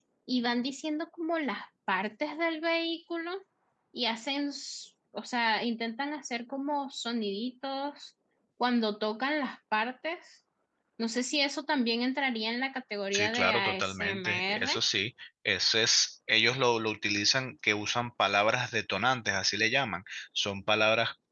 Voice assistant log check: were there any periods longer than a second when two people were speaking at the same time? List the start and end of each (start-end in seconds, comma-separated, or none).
13.1-14.8